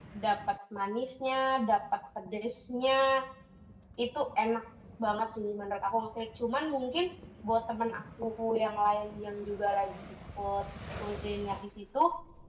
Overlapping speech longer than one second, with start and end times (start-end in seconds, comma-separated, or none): none